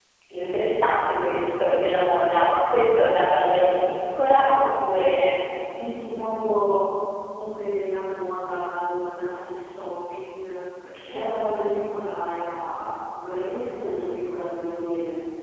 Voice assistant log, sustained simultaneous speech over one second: none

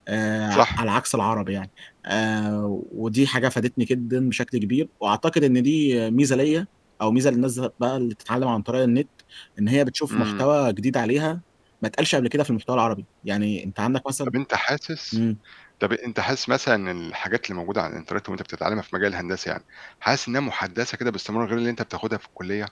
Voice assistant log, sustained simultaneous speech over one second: none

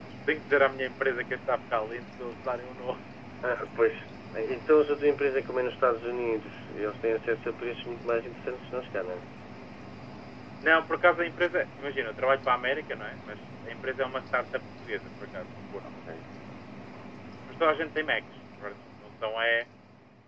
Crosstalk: none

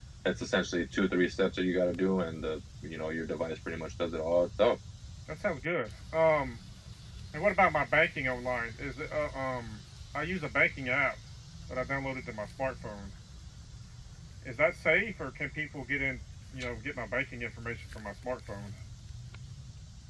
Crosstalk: none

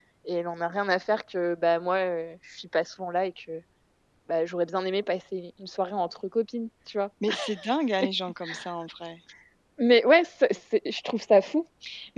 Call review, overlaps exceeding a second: none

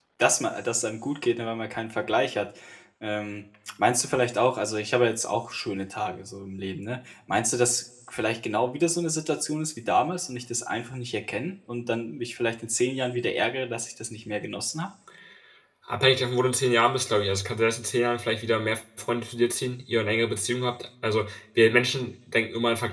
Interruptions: none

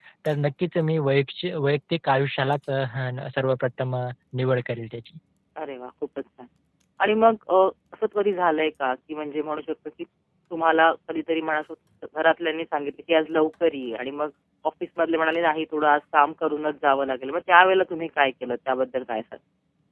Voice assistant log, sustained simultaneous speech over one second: none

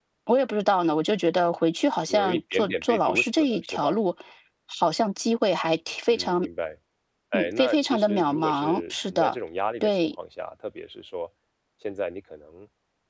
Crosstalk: present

